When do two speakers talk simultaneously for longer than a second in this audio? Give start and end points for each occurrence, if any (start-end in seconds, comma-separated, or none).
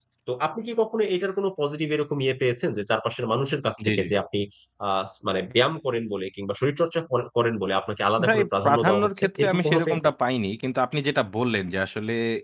8.3-10.1